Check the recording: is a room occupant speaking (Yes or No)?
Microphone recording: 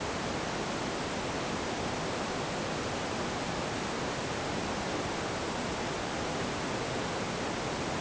No